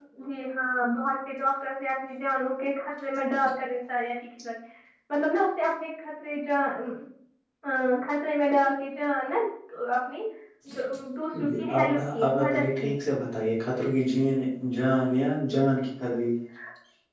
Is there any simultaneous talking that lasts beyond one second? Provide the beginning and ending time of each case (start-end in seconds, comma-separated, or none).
11.5-12.9